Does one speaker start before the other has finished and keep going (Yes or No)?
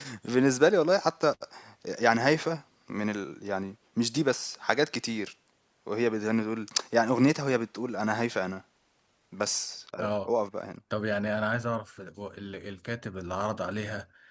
No